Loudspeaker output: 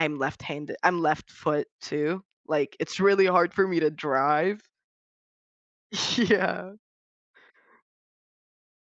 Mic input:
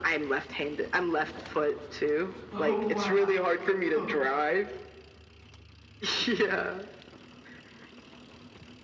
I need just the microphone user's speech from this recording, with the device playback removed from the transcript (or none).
Oh, wow. Oh, wow.